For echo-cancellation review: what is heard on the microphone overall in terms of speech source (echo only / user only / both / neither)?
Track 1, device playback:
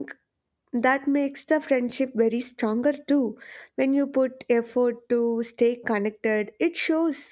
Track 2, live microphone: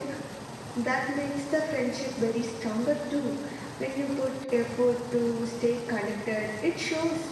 echo only